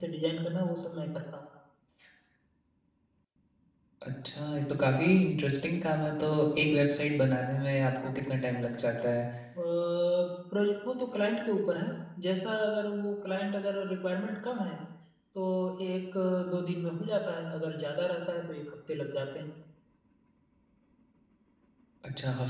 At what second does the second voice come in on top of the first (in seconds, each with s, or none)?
none